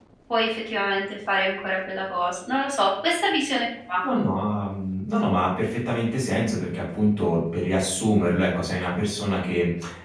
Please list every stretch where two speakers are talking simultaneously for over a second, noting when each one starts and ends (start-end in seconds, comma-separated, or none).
none